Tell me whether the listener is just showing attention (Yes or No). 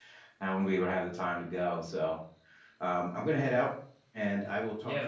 No